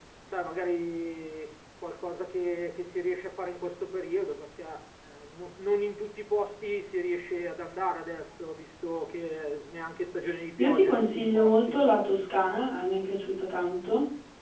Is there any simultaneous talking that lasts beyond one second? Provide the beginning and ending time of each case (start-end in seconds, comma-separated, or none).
10.6-11.8